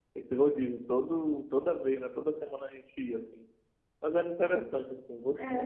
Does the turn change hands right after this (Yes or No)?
Yes